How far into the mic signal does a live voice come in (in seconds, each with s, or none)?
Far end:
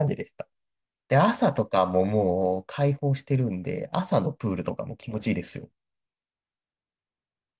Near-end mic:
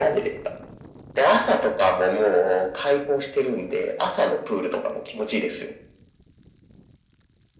none